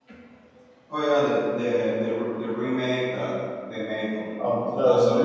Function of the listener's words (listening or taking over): taking over